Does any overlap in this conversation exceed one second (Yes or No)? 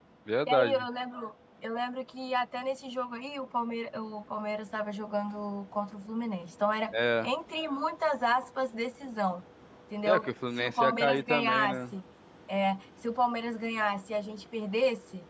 Yes